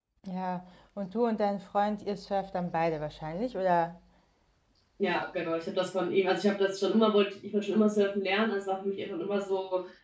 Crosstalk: none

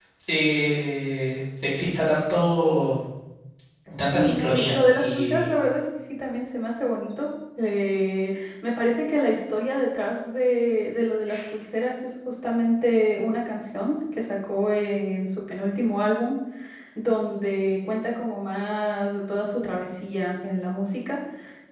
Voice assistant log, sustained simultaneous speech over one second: present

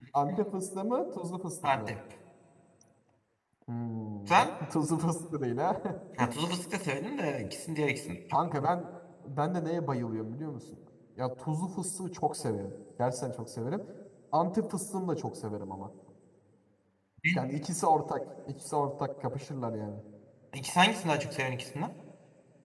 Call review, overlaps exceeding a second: none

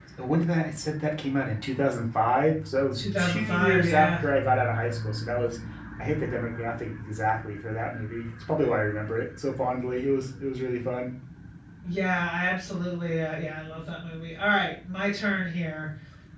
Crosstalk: present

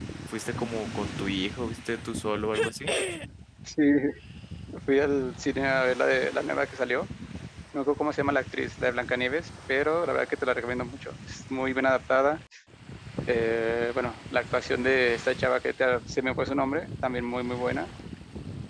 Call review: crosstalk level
none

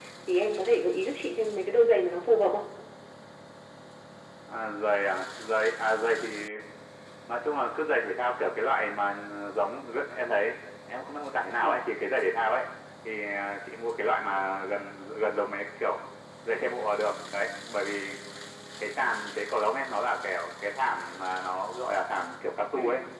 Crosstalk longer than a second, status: none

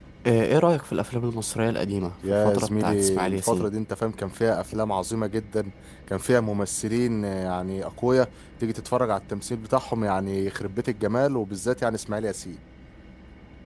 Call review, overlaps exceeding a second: present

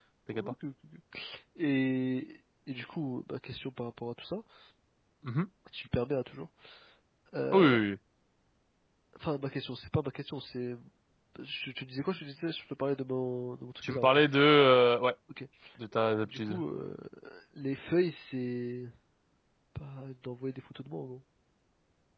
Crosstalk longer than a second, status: none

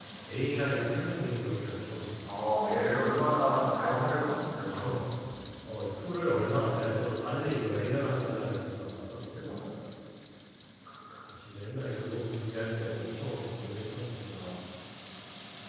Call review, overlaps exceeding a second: none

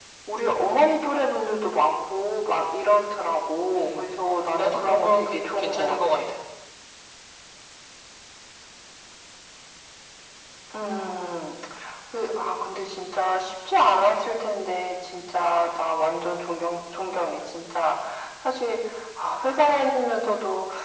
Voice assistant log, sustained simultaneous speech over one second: present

